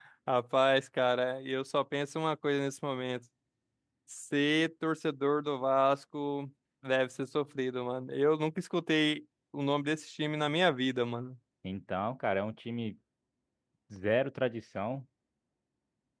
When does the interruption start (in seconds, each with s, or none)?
none